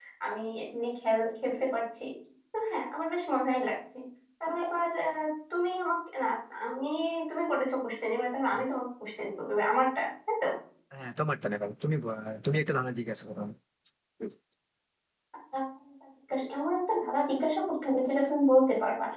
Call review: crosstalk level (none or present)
none